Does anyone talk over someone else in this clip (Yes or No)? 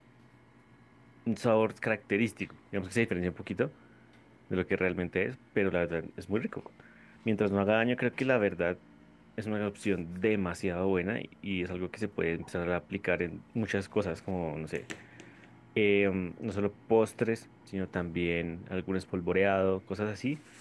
No